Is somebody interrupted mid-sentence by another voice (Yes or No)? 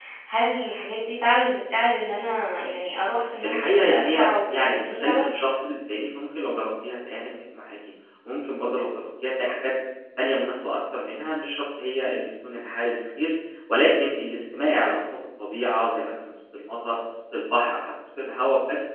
Yes